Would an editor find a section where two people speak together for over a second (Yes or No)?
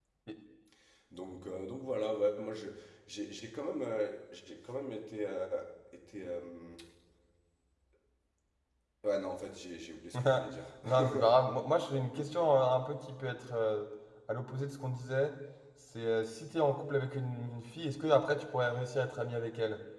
No